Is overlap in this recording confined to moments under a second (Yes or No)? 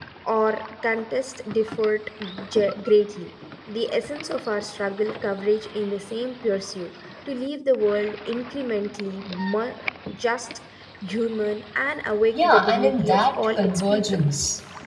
No